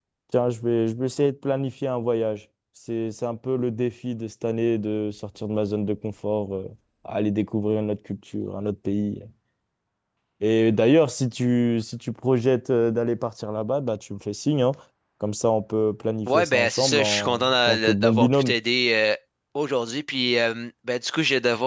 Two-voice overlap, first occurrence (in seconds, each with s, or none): 16.3 s